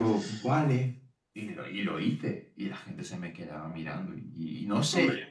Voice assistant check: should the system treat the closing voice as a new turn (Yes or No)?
No